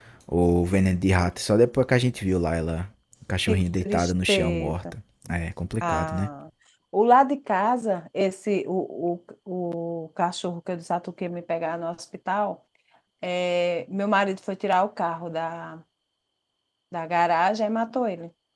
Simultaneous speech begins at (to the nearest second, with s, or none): 3 s